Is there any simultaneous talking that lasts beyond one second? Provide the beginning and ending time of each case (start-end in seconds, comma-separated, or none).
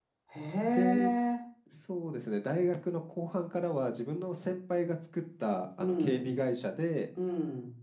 none